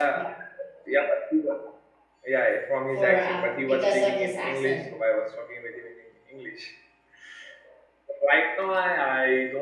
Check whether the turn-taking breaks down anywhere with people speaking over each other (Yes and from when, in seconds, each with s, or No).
Yes, from 2.9 s